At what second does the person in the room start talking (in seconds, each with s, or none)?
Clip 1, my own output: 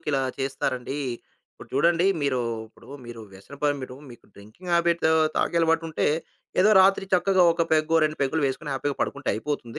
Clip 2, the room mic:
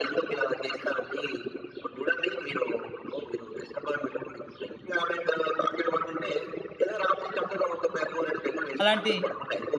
8.8 s